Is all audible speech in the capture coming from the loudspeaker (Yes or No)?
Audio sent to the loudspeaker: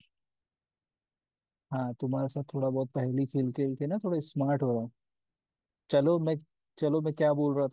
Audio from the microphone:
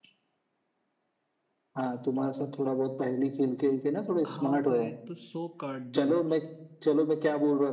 No